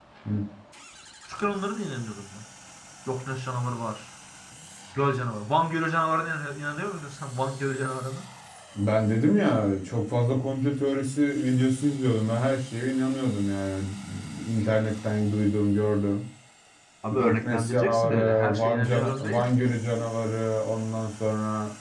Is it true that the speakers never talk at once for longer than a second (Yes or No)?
No